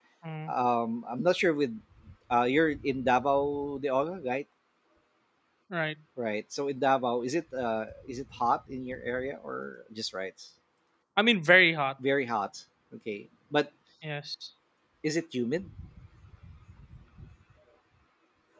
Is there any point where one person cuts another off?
No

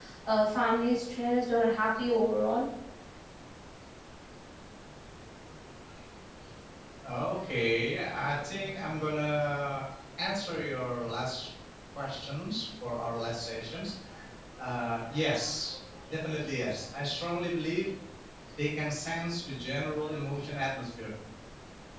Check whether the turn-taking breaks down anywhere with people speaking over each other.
No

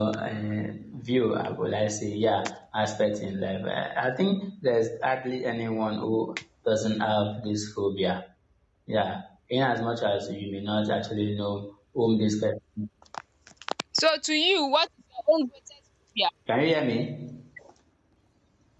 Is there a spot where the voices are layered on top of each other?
No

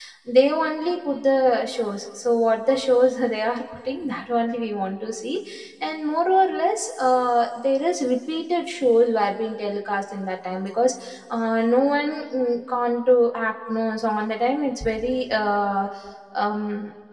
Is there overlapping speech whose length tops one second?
No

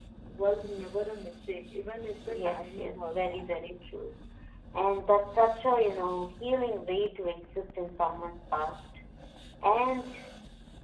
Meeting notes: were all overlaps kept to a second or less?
No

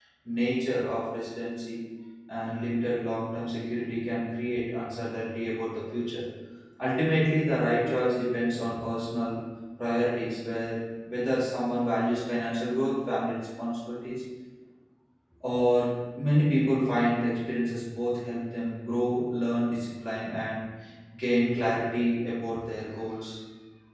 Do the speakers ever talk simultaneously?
No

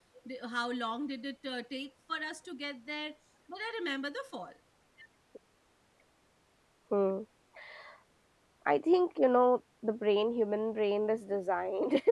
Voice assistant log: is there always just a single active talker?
Yes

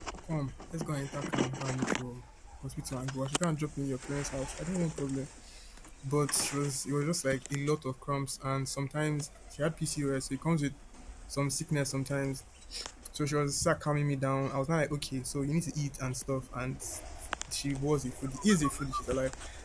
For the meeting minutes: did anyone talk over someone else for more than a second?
No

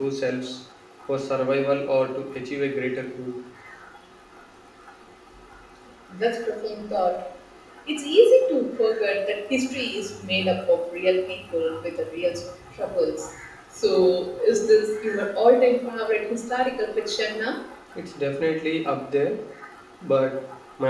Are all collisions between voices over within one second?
Yes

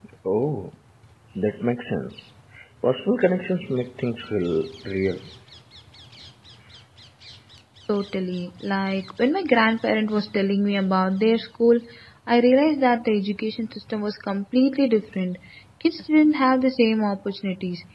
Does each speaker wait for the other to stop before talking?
Yes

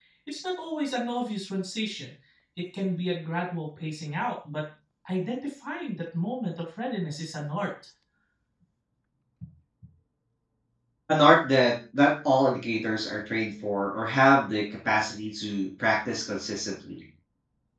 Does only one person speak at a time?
Yes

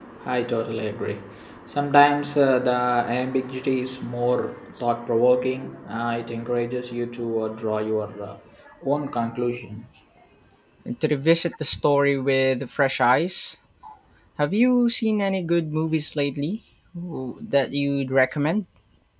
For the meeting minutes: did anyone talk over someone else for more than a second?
No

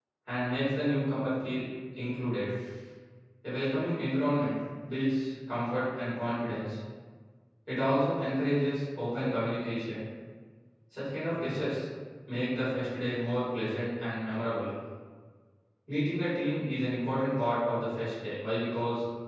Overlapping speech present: No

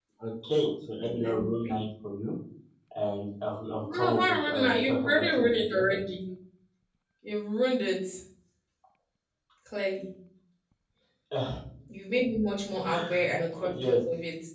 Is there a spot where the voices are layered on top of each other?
Yes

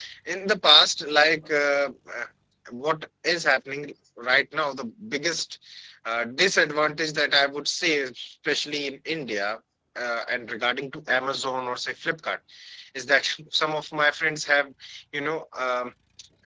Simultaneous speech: No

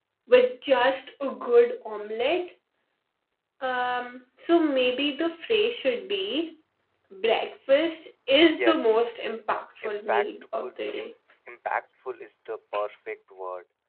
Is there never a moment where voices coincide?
No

